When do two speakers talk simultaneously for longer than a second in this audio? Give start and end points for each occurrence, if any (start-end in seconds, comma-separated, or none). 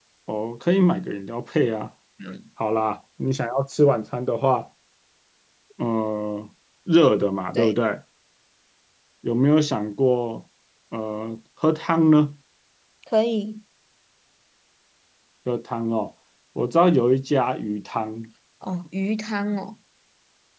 none